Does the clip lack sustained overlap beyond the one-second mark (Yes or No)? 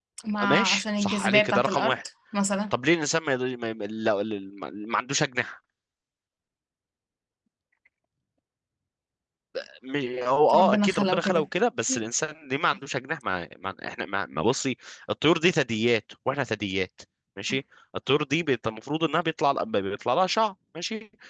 No